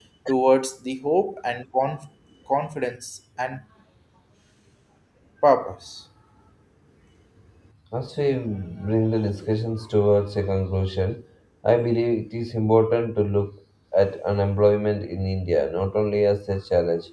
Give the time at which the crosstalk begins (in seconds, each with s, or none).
none